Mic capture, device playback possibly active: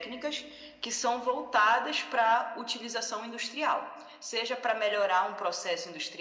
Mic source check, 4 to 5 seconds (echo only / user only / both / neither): echo only